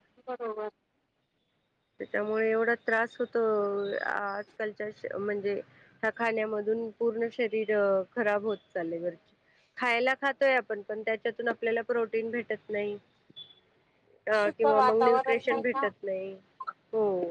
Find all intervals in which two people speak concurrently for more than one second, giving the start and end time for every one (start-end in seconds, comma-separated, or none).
14.4-15.9